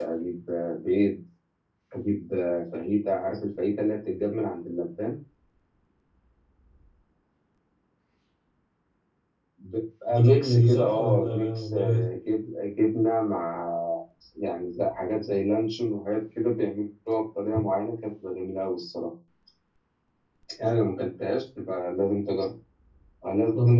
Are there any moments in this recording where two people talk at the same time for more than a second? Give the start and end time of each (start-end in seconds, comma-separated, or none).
10.1-12.0